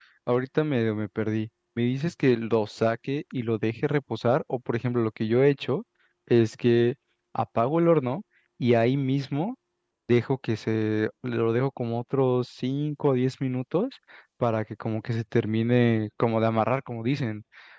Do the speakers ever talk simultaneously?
No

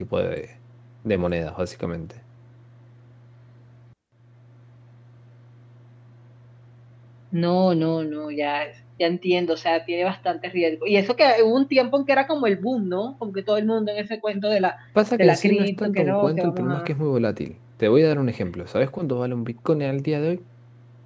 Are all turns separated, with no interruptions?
No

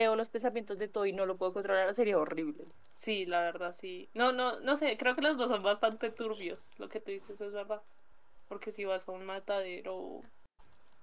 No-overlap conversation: Yes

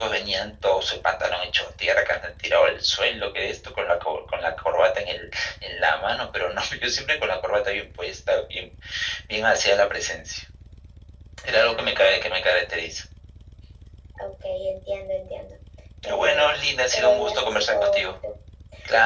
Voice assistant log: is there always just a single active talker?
No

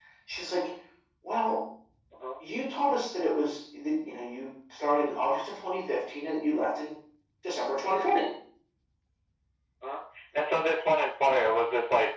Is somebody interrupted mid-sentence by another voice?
No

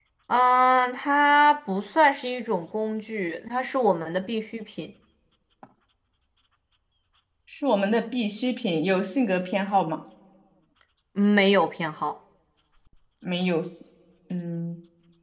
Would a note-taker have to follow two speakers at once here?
No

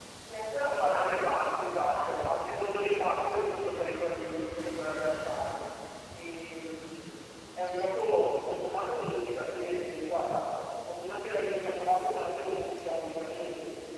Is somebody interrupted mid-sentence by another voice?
Yes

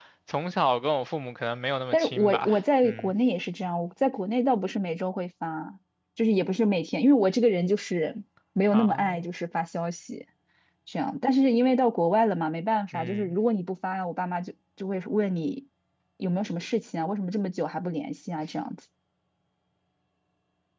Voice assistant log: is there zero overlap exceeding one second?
No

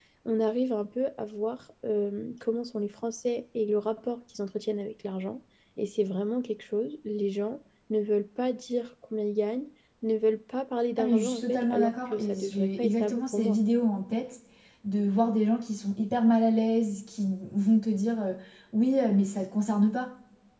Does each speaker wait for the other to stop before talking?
No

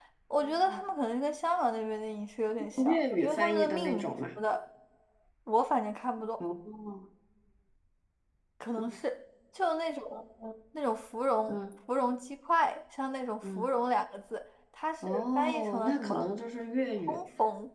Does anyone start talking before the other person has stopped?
Yes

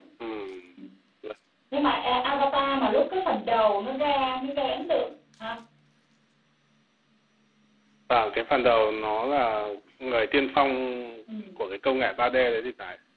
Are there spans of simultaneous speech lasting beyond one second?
No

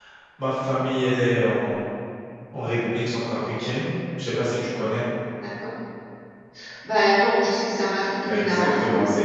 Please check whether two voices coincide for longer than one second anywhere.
No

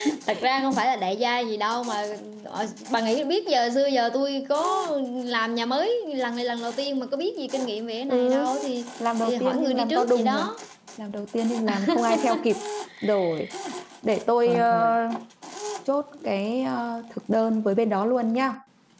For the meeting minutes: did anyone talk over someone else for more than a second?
Yes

